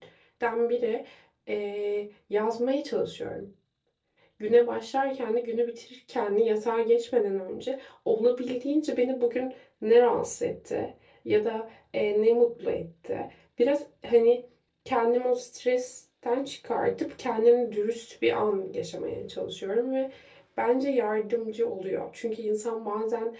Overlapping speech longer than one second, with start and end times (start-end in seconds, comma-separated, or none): none